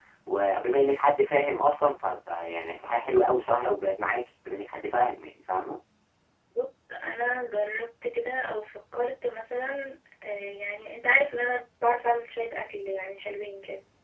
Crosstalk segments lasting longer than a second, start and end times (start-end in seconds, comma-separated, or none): none